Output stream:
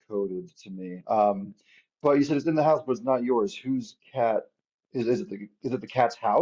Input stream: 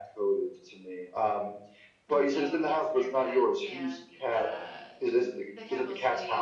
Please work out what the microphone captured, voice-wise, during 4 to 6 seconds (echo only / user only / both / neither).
both